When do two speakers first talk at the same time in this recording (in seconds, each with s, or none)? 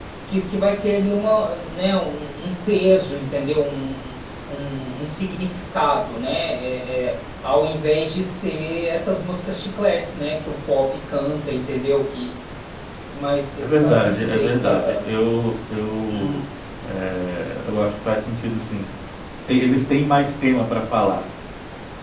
13.6 s